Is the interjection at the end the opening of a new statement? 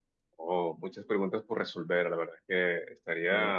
No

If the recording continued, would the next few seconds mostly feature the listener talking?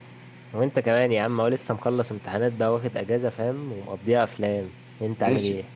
Yes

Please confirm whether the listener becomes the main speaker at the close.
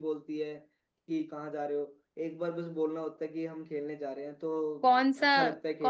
Yes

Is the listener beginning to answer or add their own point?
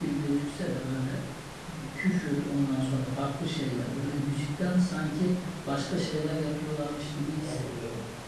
Yes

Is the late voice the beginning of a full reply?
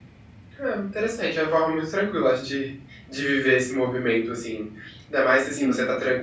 No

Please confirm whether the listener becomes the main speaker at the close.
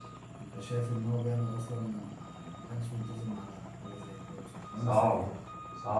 Yes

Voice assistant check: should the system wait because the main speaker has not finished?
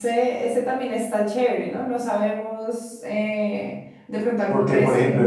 No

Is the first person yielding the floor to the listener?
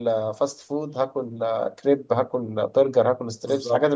Yes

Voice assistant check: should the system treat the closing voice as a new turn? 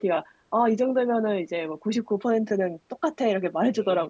Yes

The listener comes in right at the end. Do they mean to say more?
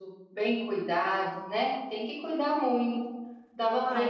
No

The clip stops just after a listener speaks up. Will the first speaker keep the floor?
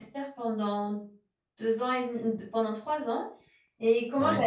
Yes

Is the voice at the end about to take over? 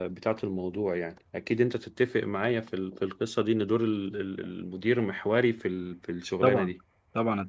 Yes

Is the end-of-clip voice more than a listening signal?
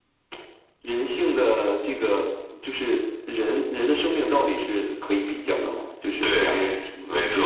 Yes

